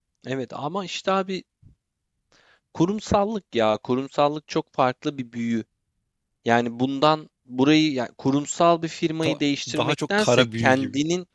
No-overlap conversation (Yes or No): No